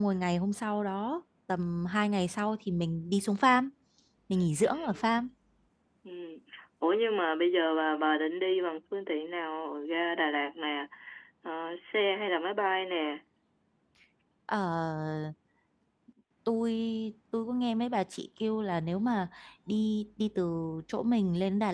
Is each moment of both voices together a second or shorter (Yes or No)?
Yes